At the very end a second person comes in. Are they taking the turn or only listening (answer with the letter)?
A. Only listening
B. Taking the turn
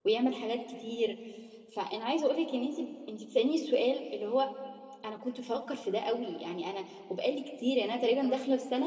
A